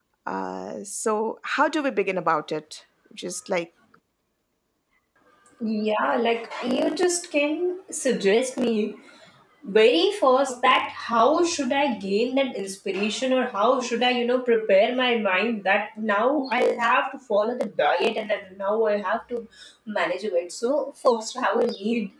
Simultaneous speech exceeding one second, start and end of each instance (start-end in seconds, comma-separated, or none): none